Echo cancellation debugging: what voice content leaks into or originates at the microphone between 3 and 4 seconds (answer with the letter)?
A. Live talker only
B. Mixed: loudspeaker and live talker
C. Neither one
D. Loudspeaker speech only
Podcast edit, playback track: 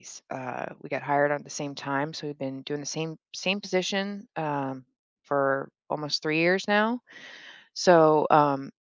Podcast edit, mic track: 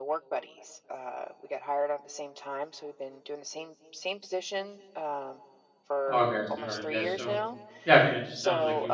D